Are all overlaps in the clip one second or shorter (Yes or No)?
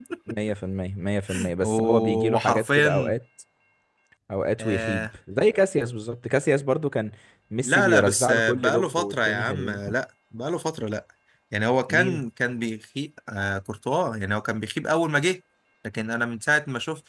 No